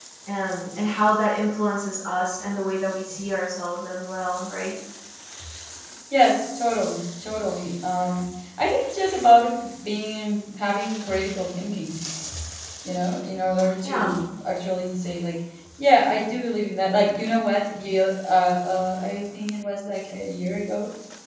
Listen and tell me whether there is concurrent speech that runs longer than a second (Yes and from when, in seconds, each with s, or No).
No